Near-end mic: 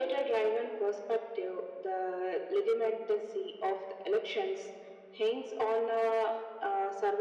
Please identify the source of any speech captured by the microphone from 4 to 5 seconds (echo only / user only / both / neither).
echo only